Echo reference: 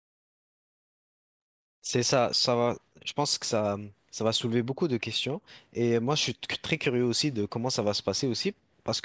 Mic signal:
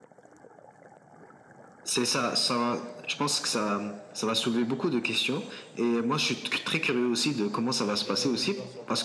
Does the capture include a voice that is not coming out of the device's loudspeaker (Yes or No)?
Yes